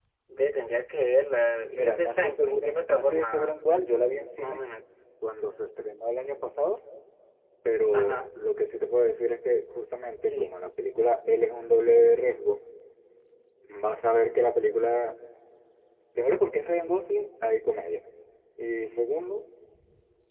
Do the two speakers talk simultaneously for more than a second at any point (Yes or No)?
Yes